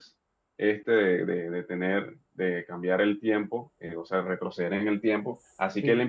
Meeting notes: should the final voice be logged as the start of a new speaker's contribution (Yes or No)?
No